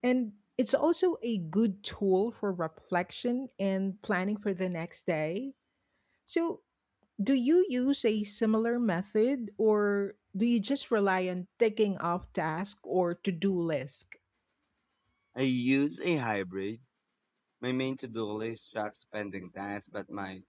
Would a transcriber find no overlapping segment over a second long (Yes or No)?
Yes